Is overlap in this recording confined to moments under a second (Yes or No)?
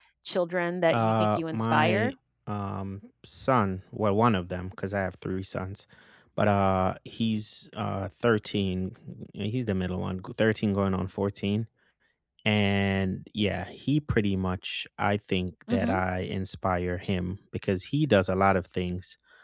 No